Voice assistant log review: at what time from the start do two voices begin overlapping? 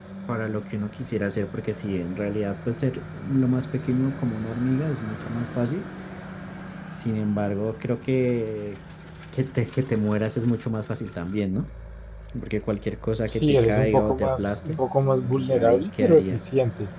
13.2 s

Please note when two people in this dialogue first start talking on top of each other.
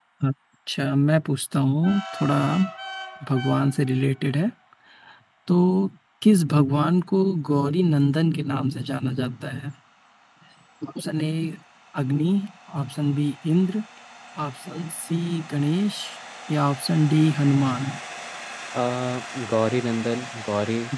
none

